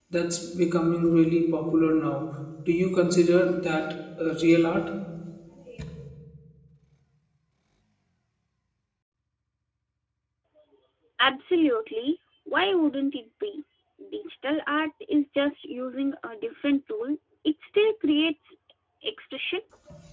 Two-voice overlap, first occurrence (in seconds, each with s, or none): none